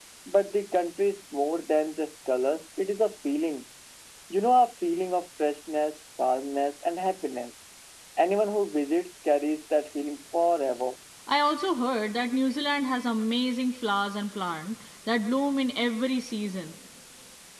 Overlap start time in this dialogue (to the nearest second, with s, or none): none